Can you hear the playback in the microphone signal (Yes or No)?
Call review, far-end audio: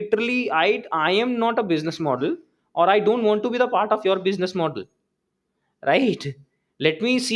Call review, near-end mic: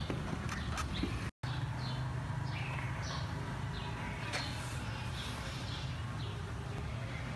No